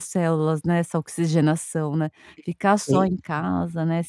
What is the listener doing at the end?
listening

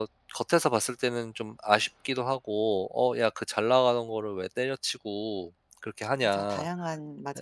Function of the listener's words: taking over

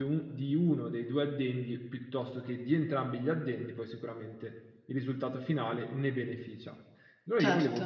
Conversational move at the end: listening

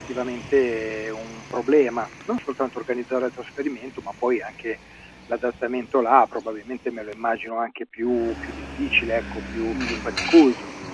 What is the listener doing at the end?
taking over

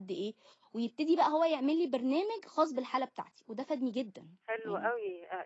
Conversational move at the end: taking over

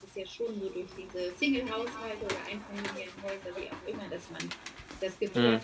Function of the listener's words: listening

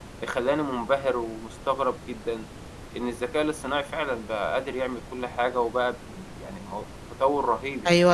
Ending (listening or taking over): taking over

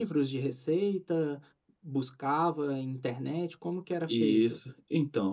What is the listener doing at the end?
taking over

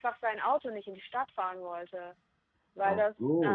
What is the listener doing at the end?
taking over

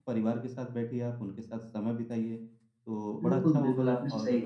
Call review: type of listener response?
taking over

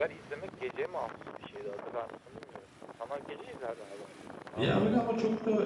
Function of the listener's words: taking over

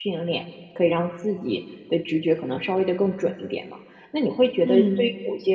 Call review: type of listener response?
listening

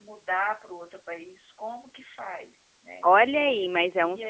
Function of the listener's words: taking over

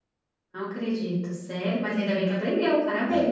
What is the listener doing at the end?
taking over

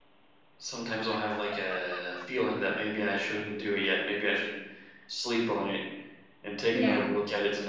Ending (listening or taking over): listening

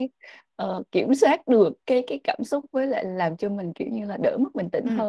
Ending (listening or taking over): taking over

